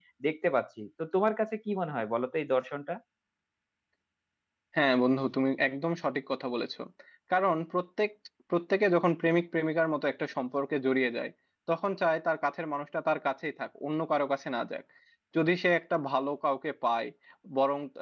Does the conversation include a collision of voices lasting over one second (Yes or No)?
No